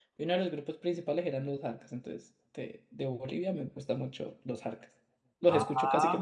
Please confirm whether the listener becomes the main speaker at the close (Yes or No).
Yes